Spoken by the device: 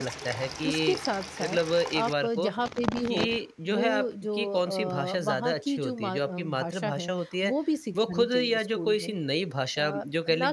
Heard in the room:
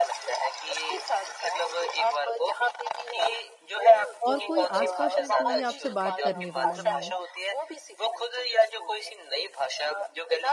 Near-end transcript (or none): और कोई आस-पास में कोई आपसे बात करने वाला नहीं है।